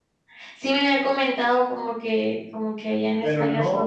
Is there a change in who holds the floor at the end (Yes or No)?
Yes